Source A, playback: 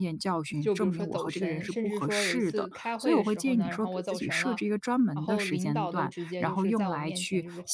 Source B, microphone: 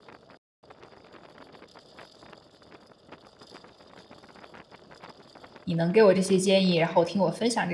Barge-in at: 5.6 s

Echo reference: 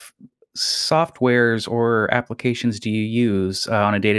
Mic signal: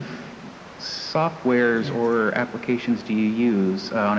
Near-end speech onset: 1.8 s

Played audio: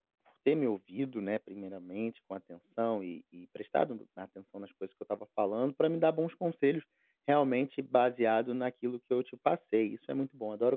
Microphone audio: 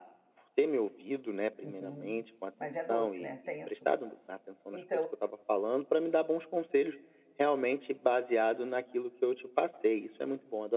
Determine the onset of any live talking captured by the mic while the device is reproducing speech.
1.6 s

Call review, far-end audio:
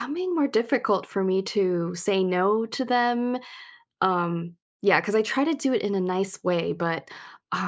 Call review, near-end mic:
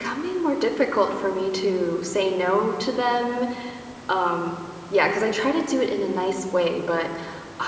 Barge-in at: none

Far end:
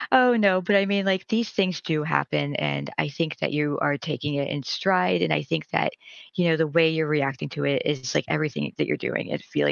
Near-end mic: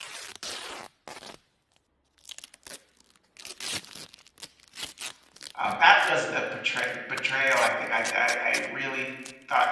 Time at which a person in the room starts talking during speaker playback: 5.5 s

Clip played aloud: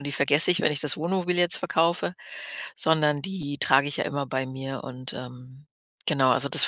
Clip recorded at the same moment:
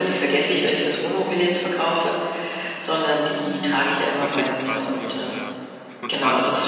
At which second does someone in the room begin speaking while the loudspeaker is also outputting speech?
4.1 s

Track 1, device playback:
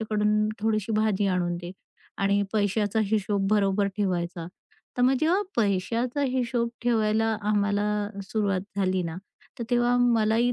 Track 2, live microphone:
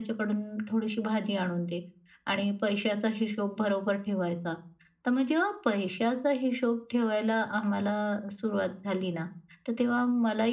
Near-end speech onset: none

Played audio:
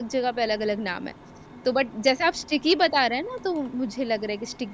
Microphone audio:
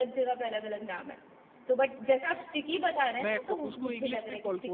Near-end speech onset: 3.2 s

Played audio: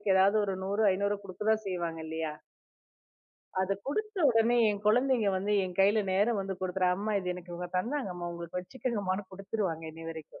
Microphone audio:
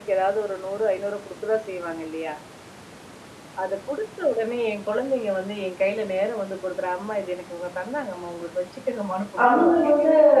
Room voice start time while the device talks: 9.4 s

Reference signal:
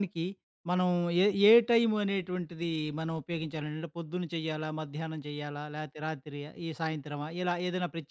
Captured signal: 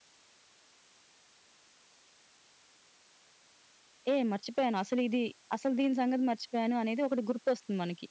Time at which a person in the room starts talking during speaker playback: 4.1 s

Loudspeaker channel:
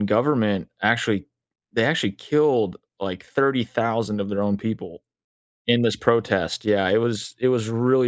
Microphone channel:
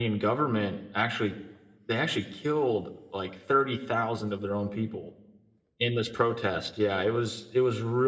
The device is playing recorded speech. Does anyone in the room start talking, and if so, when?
none

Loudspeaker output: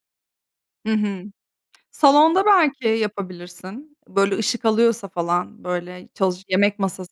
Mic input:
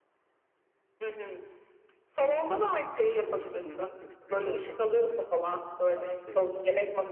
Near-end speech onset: 3.1 s

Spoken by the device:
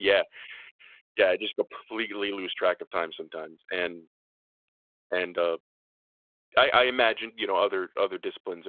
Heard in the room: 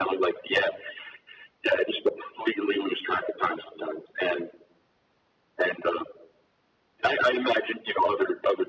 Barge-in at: none

